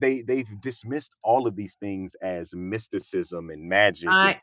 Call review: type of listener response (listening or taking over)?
listening